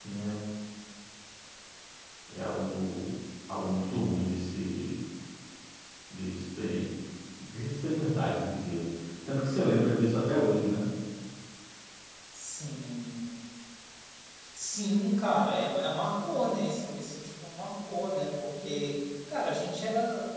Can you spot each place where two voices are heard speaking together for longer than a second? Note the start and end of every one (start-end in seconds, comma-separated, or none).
none